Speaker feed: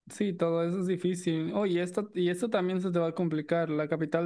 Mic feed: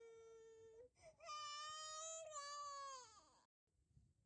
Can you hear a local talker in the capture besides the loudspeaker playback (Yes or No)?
No